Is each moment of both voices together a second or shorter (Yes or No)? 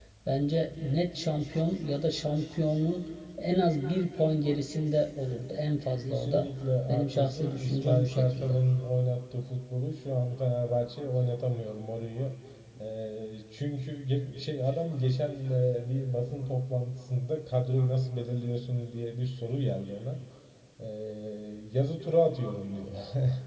No